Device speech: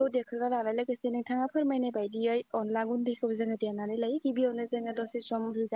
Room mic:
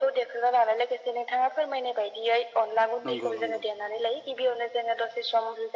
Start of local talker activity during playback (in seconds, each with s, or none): 3.1 s